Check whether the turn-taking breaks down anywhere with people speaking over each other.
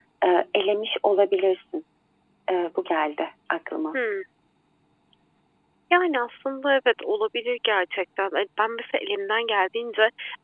No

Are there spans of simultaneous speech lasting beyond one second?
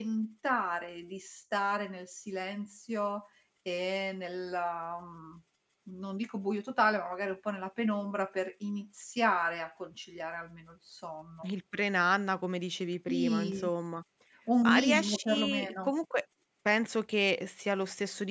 Yes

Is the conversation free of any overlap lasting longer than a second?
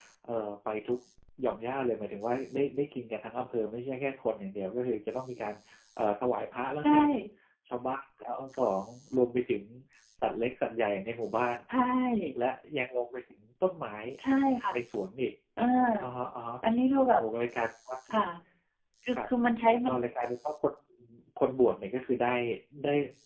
Yes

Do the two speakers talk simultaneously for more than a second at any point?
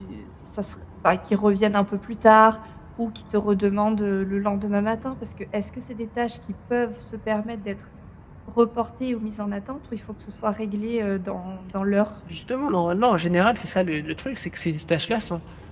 No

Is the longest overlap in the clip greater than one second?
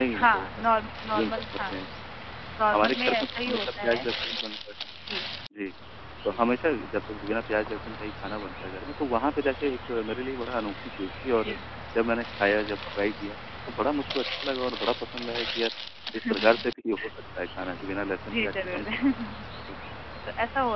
Yes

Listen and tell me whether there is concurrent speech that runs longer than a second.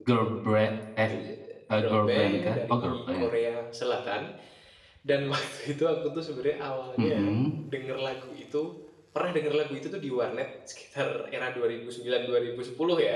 Yes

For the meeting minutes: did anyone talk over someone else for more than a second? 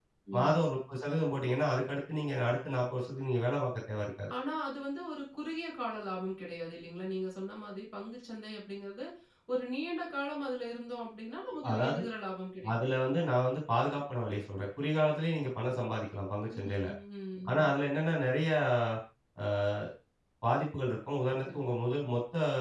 No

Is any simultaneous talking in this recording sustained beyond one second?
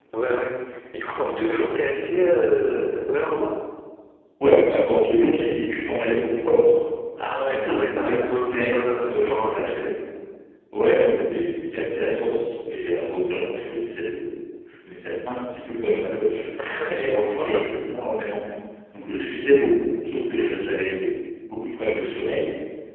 Yes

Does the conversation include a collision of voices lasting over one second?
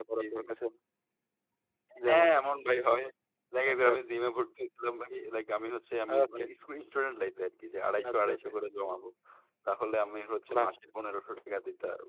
No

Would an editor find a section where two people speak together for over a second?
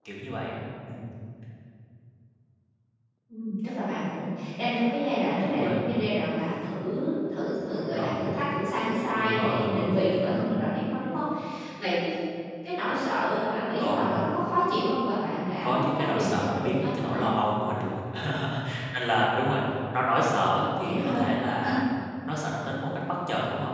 Yes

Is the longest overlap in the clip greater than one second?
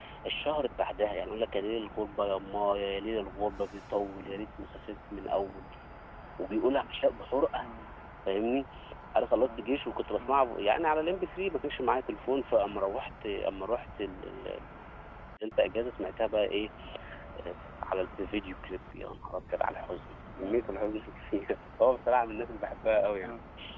No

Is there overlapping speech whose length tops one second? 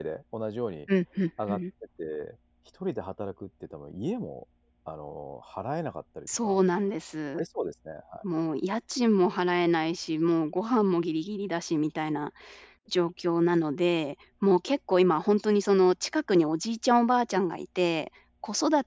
No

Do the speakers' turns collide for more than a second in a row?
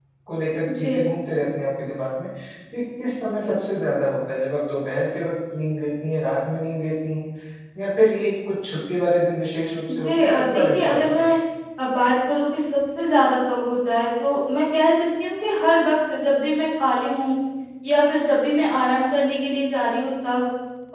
Yes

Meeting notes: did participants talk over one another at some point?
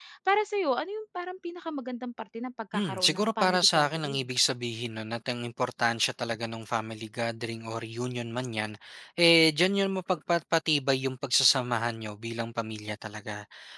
Yes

